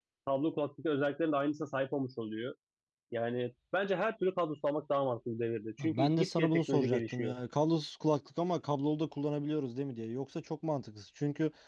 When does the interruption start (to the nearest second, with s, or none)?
6 s